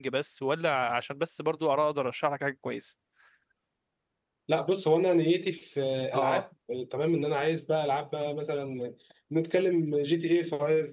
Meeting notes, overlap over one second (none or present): none